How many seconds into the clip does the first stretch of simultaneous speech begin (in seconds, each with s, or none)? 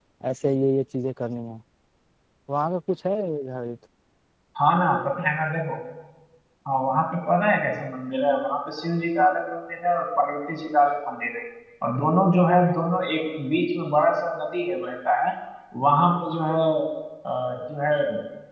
none